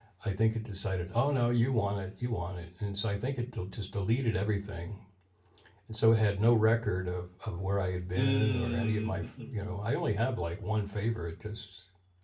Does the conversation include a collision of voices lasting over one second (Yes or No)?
Yes